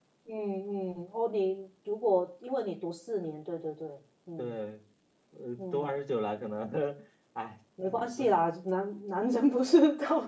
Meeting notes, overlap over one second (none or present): none